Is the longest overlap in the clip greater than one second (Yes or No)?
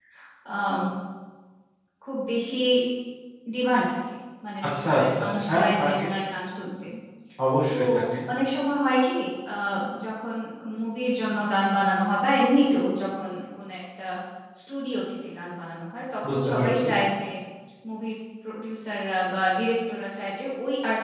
Yes